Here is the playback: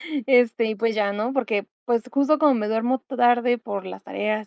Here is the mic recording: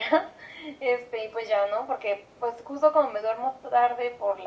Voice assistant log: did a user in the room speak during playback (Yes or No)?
No